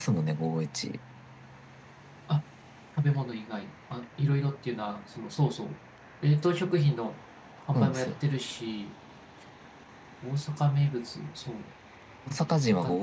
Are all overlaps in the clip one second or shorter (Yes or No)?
Yes